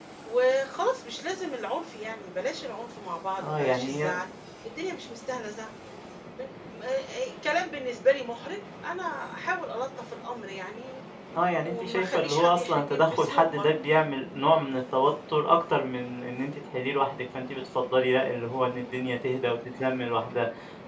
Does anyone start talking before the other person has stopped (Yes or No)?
Yes